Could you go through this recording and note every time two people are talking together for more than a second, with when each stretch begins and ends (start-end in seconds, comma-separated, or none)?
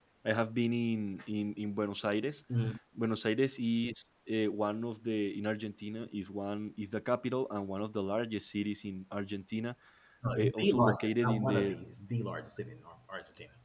10.3-11.8